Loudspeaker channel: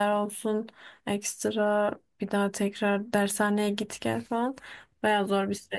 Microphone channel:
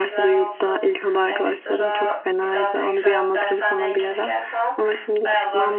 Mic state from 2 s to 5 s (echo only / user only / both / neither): both